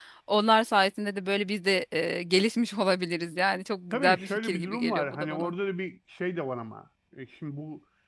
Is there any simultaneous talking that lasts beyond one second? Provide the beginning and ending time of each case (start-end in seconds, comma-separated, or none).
3.9-5.5